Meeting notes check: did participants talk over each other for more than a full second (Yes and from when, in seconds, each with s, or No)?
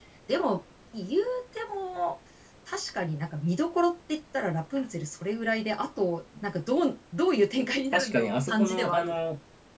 Yes, from 7.9 s